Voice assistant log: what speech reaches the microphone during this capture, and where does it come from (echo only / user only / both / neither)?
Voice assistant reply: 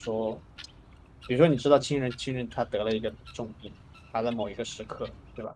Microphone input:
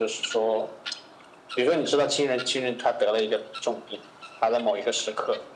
echo only